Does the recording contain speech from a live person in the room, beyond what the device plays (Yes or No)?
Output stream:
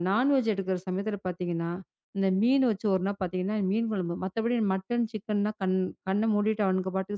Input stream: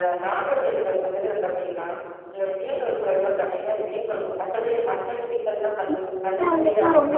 Yes